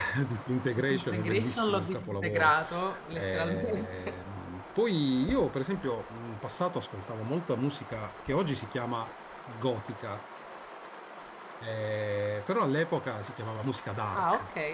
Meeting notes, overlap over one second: present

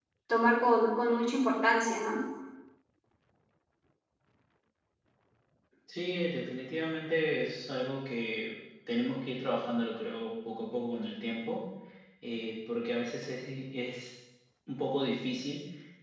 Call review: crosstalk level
none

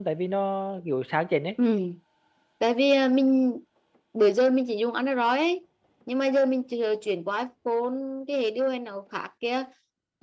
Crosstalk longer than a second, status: none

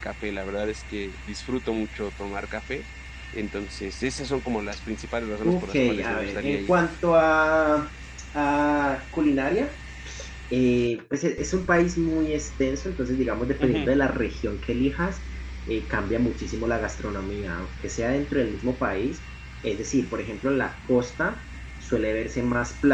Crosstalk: present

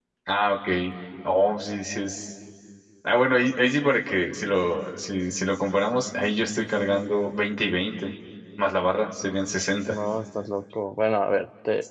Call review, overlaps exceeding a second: none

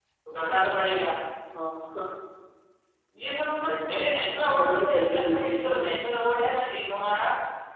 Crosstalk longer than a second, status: present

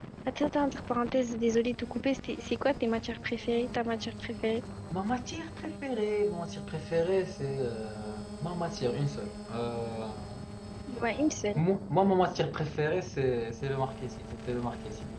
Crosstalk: none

